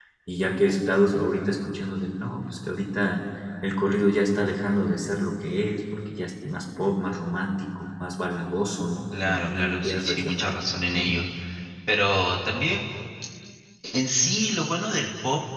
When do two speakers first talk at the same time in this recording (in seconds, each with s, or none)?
9.1 s